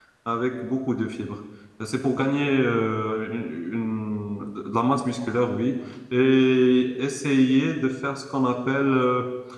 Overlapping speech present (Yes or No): No